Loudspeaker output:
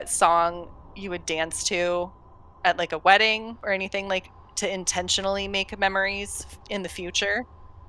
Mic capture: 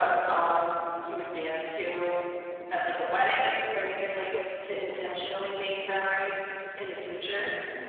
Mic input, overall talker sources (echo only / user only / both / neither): both